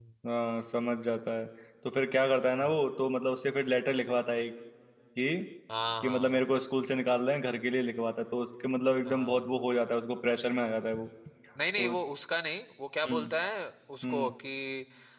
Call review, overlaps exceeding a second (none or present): none